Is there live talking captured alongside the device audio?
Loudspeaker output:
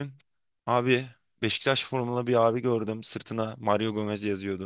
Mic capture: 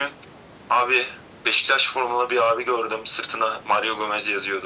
No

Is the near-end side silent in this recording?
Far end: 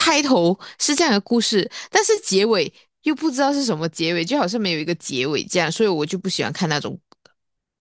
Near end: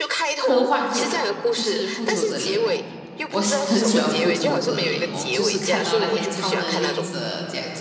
No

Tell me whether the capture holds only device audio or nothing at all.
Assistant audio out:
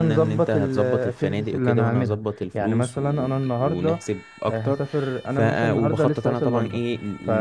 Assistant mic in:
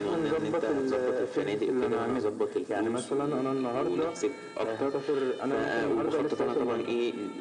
Yes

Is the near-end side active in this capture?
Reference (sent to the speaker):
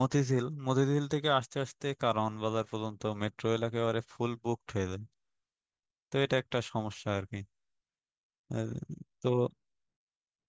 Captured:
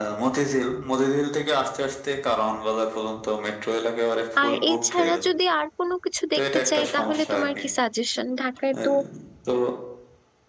Yes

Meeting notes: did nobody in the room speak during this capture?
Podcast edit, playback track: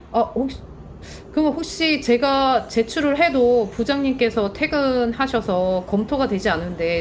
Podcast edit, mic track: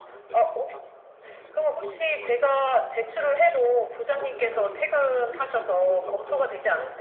No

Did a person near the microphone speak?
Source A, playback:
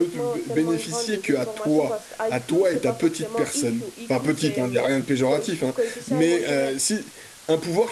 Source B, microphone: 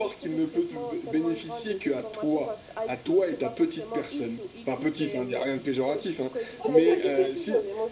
Yes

